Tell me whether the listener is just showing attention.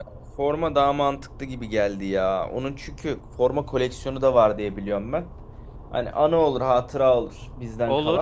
No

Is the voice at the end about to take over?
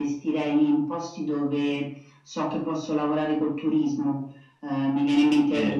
No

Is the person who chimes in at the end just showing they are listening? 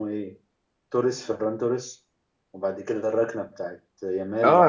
No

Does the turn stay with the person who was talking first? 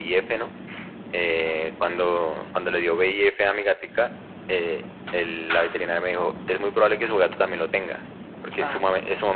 Yes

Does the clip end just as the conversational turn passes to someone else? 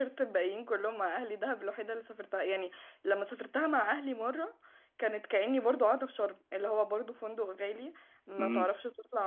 No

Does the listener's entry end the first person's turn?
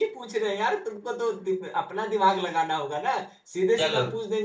No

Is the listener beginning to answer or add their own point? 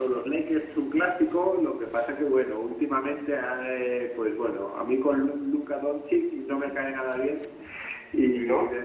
No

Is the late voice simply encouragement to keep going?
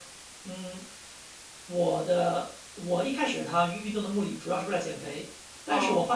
Yes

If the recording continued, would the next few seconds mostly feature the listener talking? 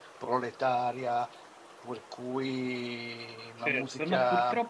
Yes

